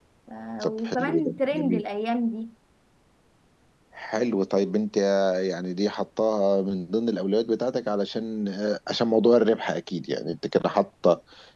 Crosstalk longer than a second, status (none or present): present